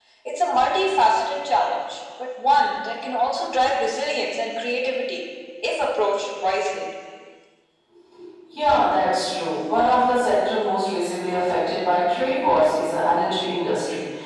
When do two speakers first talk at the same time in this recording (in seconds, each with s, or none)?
none